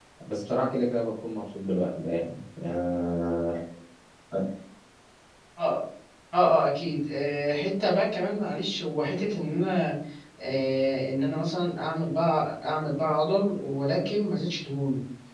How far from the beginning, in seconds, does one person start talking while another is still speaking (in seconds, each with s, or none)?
none